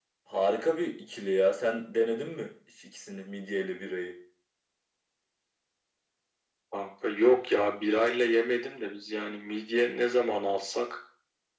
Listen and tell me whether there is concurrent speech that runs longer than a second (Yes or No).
No